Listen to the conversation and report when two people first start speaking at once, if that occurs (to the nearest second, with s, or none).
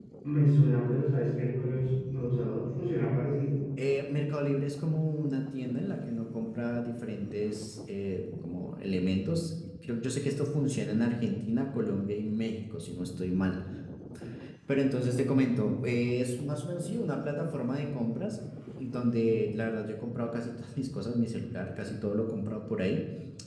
none